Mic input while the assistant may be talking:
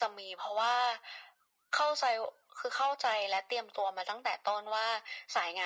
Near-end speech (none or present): none